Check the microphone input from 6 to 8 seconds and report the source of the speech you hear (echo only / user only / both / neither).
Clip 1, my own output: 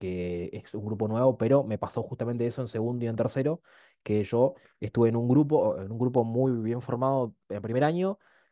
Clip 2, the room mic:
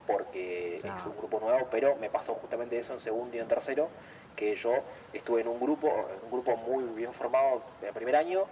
echo only